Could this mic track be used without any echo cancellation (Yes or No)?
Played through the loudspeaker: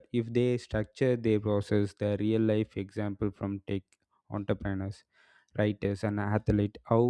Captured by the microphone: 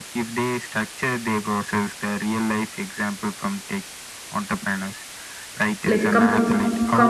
No